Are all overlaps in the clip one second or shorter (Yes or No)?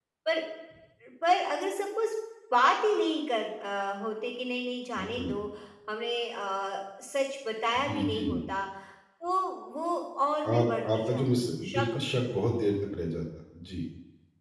No